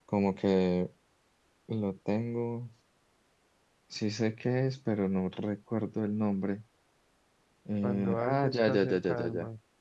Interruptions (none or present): present